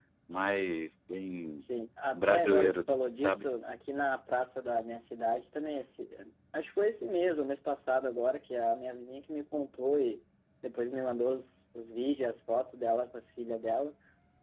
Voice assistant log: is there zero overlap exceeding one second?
No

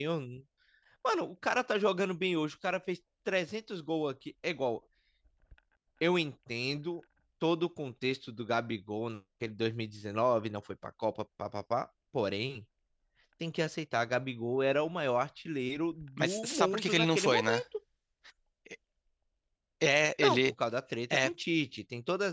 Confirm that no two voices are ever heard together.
No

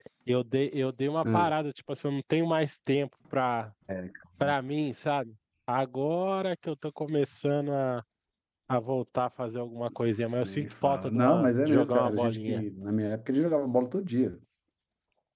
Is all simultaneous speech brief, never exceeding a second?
No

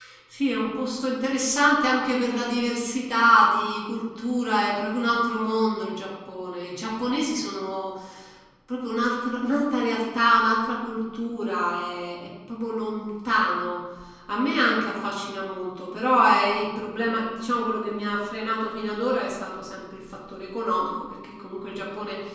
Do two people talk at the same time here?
No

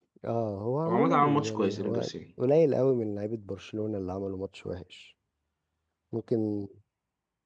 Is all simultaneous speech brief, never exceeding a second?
No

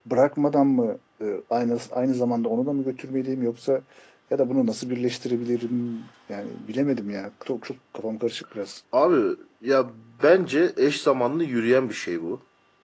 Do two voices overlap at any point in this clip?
No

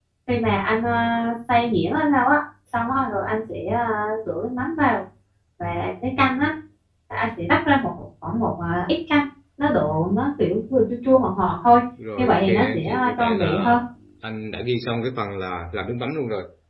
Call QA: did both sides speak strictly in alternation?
No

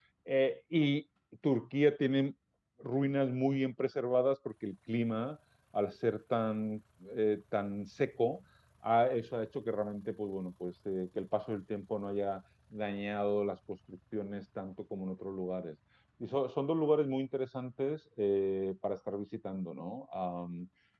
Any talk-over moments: No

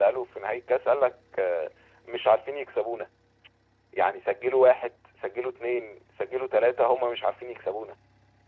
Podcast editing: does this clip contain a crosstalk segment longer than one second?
No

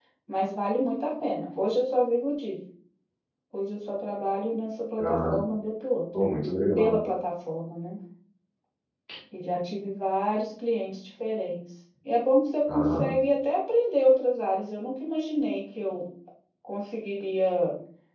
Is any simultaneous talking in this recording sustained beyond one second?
No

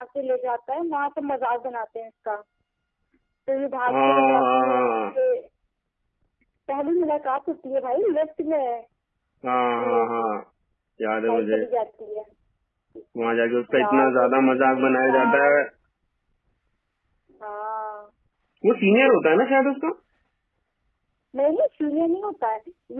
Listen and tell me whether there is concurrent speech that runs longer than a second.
Yes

